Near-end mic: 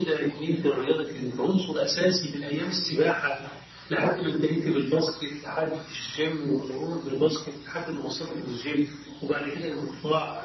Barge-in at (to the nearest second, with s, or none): none